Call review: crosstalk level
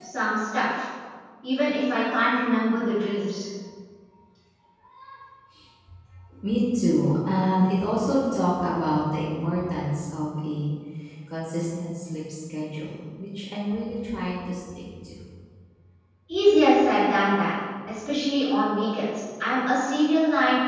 none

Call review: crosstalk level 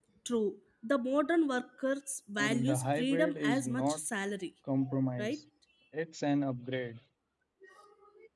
present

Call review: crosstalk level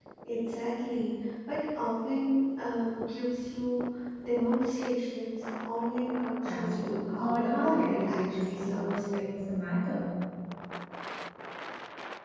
present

